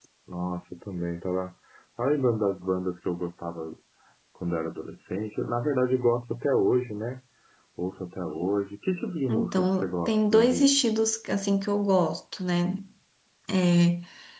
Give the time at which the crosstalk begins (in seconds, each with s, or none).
9.3 s